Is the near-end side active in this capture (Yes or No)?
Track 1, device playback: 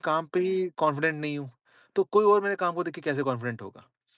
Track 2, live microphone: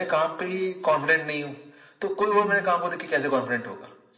Yes